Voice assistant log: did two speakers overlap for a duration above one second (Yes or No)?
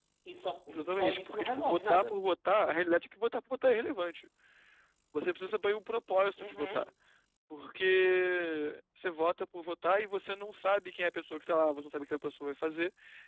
Yes